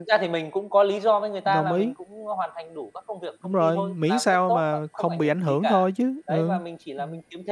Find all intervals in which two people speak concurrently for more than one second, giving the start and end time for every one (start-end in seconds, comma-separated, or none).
3.4-5.9